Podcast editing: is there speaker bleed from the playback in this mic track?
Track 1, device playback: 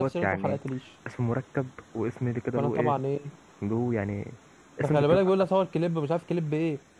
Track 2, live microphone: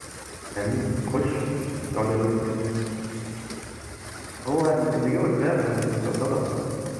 No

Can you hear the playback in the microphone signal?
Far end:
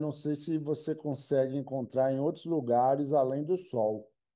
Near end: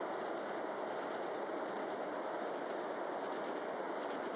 No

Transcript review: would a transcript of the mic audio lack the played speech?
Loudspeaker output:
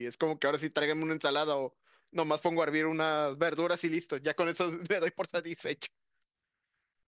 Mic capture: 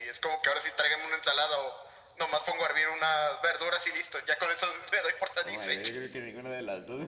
No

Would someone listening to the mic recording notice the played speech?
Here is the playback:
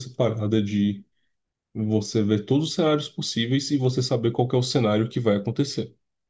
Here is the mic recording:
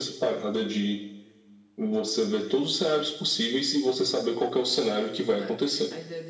Yes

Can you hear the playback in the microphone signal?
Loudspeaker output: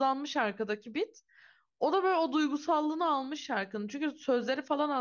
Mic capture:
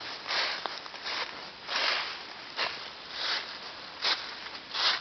No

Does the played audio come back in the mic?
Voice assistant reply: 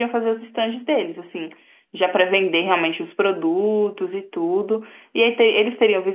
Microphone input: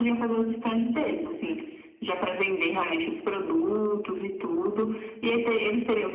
Yes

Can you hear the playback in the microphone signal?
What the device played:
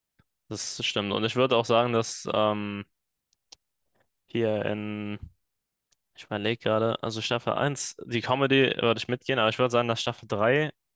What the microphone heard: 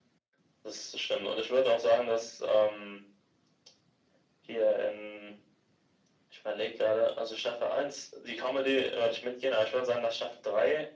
Yes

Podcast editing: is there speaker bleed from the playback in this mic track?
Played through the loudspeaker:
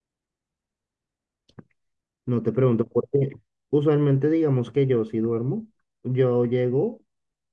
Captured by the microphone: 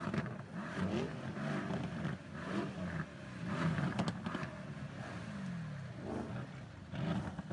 No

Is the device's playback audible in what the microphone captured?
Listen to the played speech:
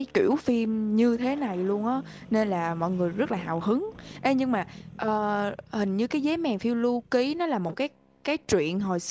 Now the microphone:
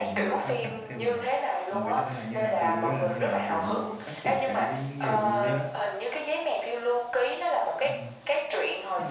Yes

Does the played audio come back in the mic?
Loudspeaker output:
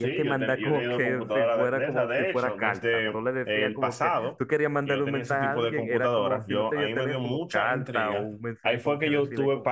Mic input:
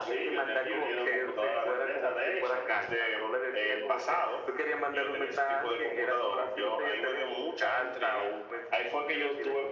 Yes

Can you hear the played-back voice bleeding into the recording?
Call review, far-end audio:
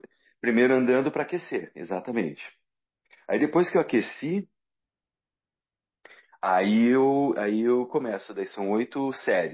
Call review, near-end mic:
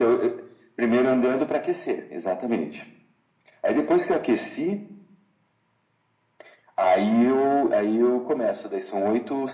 Yes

